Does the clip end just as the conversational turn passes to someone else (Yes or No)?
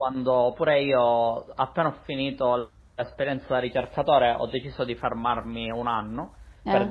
No